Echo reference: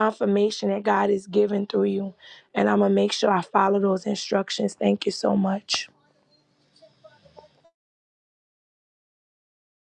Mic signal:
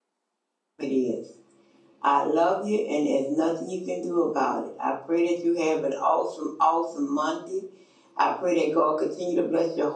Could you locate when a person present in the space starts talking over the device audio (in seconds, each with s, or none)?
0.8 s